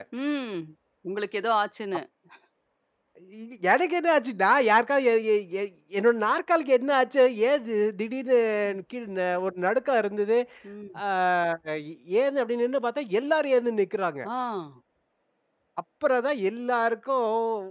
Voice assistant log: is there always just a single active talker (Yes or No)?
Yes